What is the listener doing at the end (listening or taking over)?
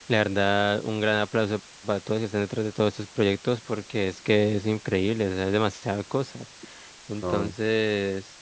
listening